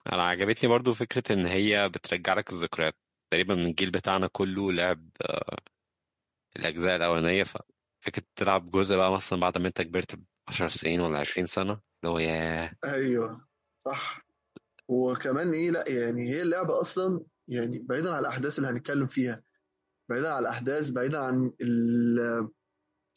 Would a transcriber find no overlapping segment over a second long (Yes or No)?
Yes